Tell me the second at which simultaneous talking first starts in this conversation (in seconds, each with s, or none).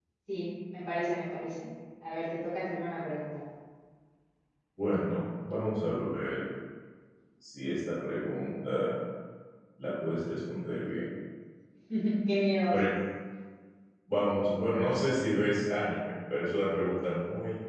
none